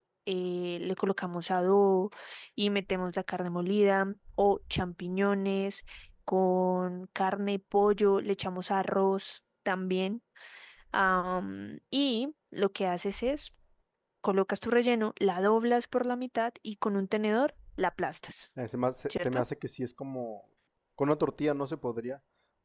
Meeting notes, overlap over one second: none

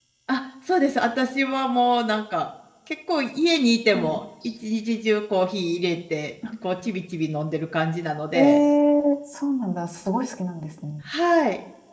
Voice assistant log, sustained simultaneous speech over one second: none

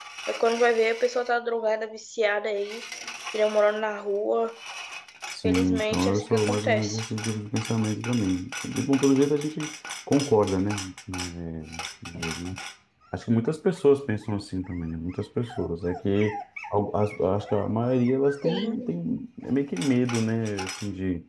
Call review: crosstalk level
present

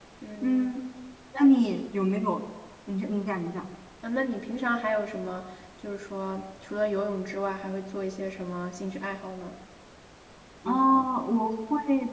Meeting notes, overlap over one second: none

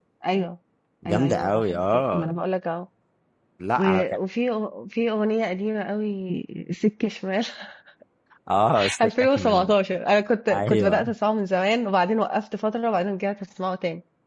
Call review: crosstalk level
present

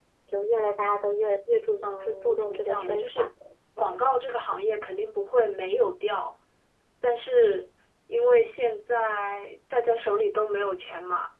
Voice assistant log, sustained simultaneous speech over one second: present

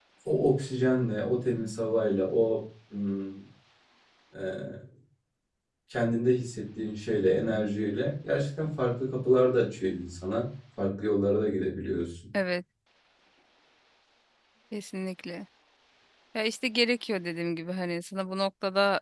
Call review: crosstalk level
none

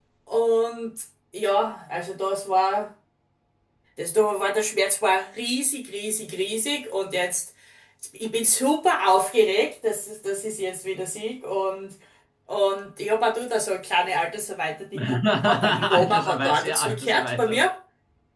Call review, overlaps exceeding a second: present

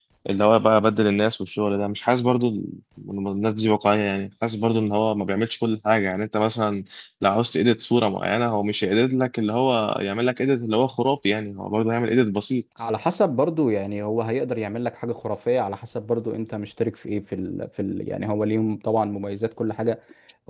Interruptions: none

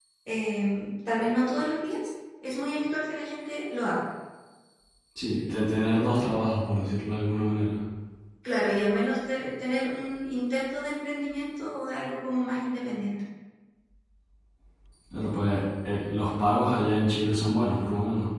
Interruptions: none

